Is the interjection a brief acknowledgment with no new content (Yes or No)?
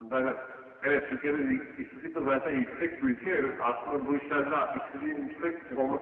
Yes